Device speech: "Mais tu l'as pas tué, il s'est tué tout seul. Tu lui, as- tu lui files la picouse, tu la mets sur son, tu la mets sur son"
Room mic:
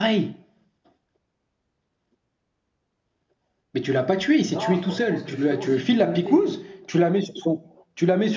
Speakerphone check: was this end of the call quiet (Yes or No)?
No